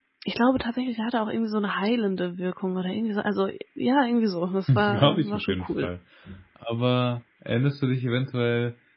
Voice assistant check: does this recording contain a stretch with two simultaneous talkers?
Yes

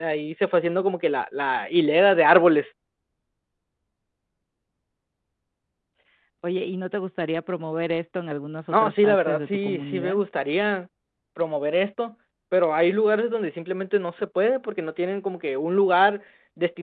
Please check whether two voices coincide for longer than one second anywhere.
Yes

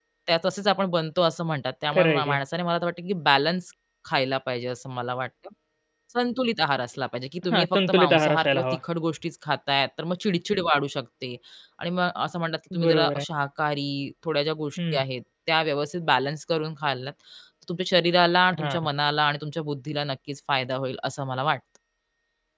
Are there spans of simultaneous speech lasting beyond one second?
Yes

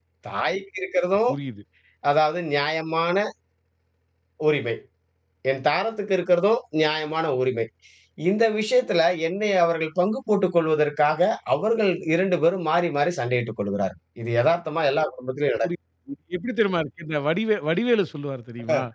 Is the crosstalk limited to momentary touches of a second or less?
Yes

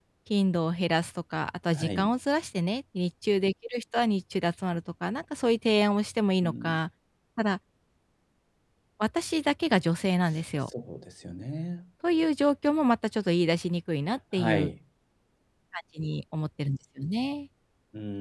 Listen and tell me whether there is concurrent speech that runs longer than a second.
No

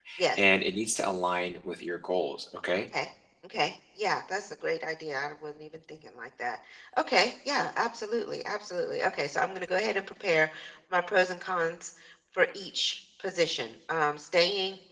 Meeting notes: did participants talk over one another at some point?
No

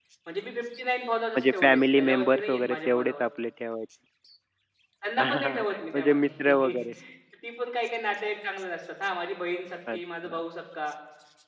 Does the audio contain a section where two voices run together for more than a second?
Yes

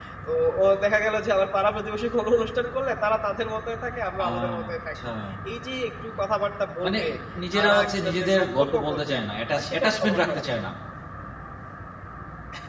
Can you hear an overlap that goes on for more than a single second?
Yes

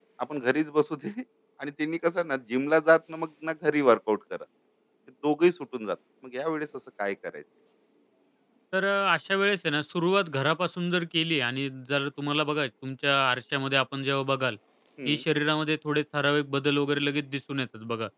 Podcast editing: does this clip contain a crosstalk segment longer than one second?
No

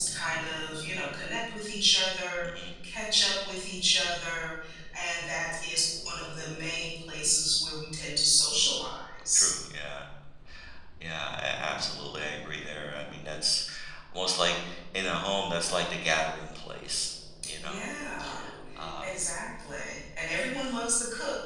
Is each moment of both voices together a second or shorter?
Yes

